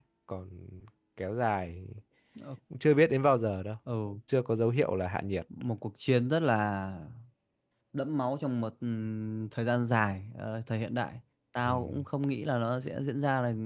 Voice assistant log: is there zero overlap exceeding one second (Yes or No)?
Yes